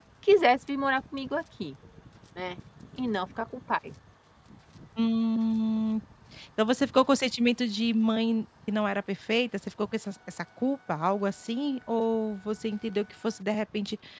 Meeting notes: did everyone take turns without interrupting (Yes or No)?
Yes